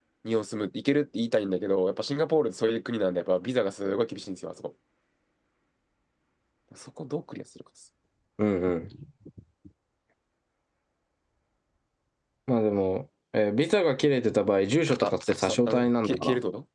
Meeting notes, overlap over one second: present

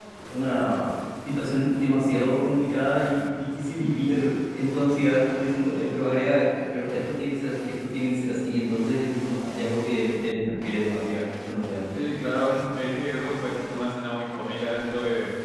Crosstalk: none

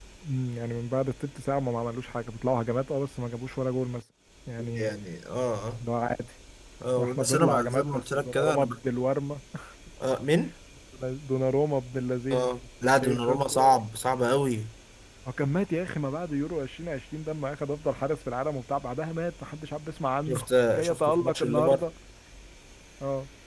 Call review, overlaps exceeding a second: present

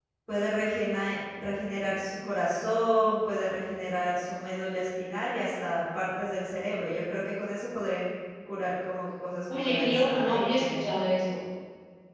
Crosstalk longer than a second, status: present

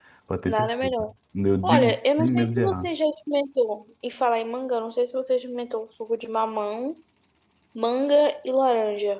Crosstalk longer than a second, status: present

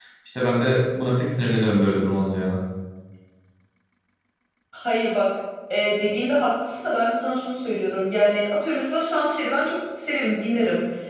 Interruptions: none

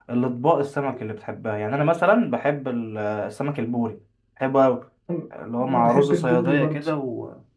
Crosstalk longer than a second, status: present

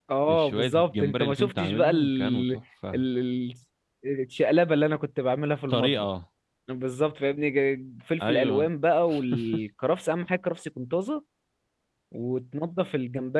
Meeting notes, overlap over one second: present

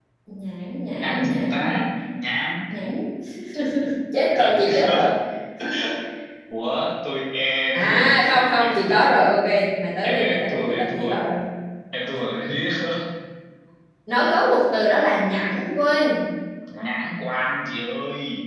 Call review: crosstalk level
present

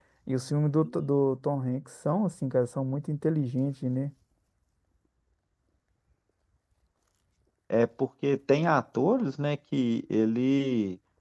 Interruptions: none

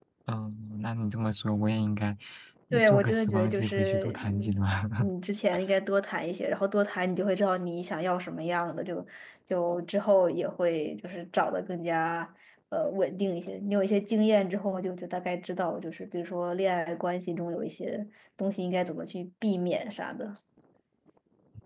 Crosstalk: present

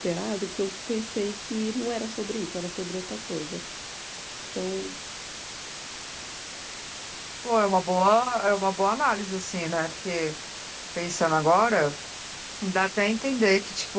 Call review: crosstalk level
none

